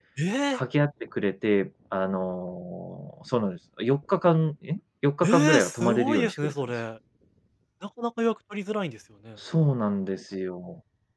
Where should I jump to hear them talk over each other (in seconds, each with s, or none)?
5.2 s